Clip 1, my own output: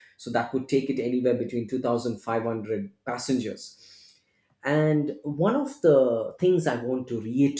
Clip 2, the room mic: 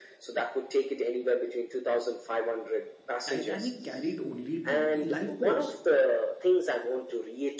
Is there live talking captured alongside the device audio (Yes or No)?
Yes